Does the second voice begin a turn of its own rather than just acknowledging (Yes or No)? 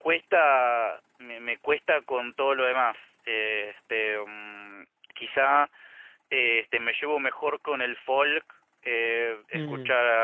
Yes